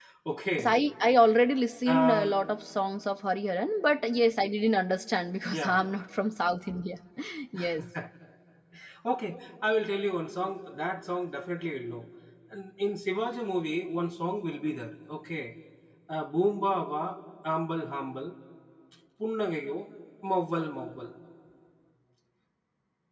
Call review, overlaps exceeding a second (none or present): none